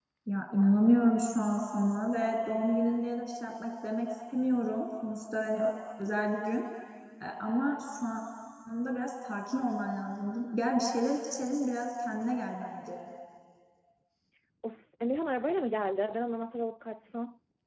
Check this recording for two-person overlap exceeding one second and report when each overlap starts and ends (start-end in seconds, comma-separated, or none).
none